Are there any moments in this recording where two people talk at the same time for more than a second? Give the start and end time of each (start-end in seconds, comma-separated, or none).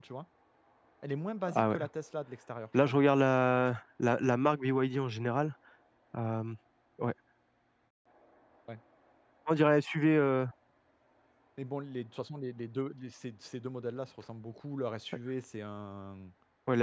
none